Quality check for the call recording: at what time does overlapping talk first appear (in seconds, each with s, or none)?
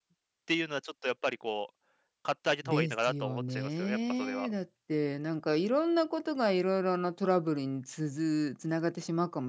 2.6 s